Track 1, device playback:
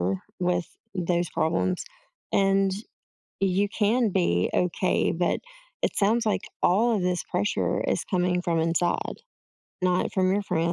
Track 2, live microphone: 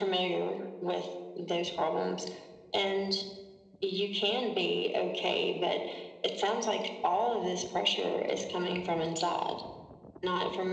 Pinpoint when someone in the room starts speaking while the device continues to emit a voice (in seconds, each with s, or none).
none